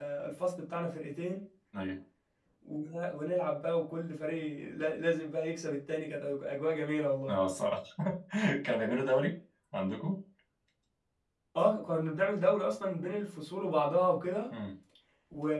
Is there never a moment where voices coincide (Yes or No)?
Yes